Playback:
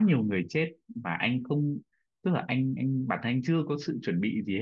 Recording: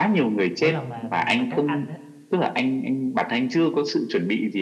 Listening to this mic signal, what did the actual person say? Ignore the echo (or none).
mỗi lần mà mà mà các anh á